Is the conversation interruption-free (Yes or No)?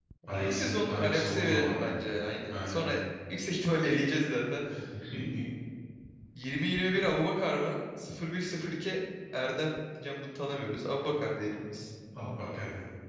No